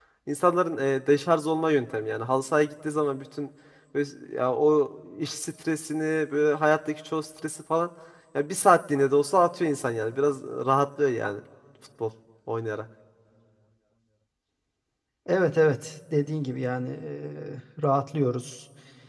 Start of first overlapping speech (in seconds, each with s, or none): none